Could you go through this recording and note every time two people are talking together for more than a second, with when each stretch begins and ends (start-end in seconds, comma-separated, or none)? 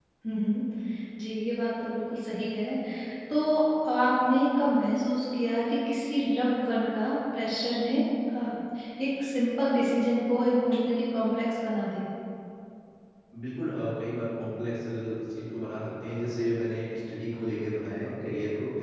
none